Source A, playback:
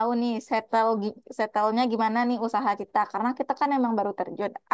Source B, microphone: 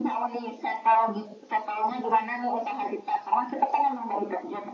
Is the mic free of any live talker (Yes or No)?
Yes